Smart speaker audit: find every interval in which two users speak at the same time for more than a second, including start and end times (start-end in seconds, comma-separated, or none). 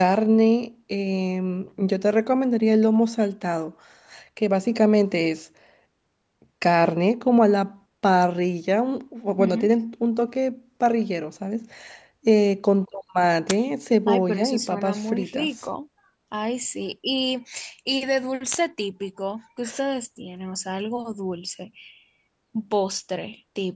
14.1-15.5